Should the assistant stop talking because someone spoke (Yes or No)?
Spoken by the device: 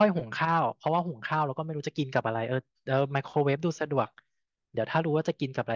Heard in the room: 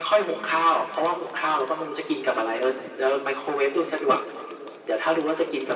No